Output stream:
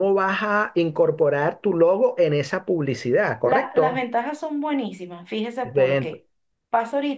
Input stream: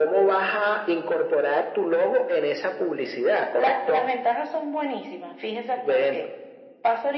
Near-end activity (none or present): none